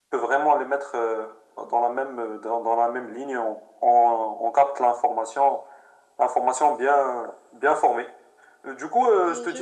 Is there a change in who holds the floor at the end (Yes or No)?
No